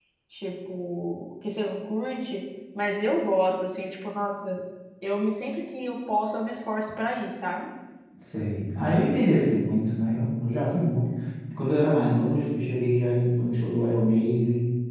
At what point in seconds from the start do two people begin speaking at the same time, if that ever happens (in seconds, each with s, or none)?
none